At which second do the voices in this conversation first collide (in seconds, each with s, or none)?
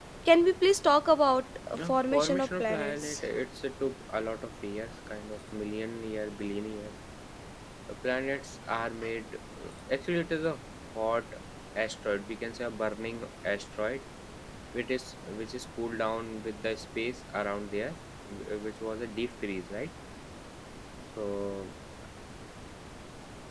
1.7 s